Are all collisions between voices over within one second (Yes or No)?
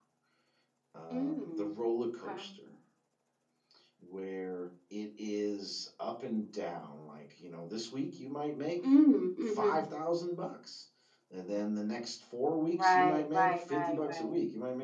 No